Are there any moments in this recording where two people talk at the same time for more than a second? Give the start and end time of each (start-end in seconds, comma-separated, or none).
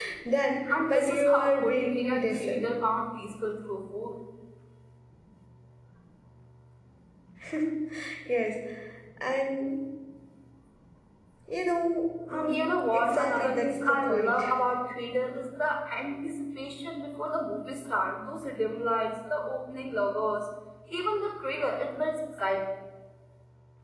0.7-2.6, 12.3-14.4